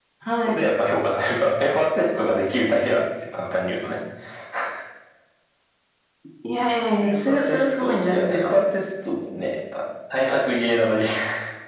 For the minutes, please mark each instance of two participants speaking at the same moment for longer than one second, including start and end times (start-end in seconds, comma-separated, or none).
7.0-8.6